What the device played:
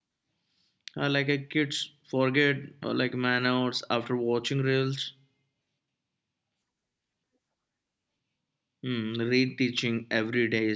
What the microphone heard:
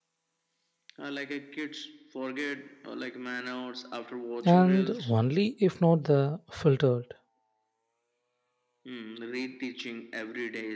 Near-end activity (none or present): present